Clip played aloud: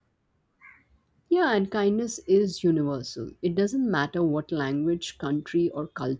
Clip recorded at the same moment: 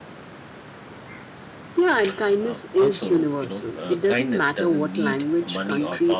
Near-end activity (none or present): present